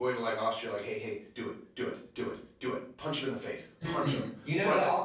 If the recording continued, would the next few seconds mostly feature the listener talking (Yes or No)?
Yes